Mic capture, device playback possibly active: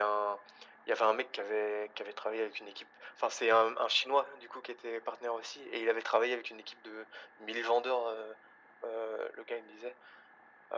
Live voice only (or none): none